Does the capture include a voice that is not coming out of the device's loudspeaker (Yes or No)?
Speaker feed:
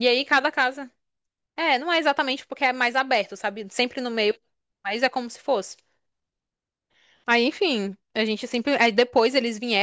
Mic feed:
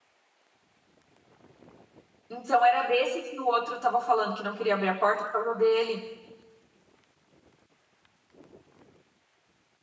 Yes